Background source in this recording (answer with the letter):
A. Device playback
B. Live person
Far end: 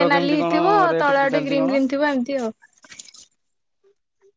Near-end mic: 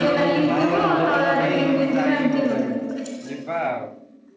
B